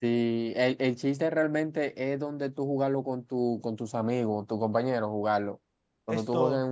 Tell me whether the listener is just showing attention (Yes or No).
Yes